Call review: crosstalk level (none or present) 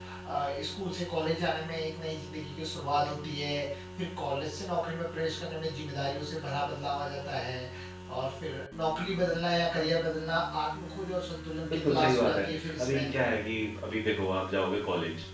present